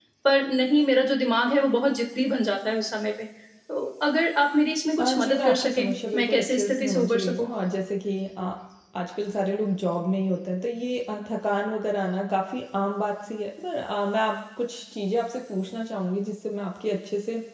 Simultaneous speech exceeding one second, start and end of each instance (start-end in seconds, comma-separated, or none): 5.0-7.5